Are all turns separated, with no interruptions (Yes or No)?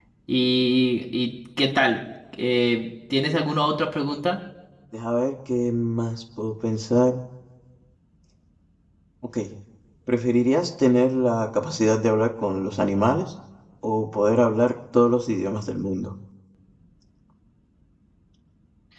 Yes